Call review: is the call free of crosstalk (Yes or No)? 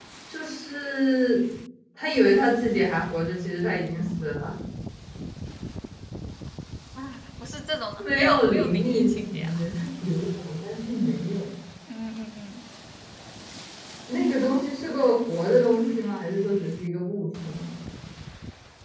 No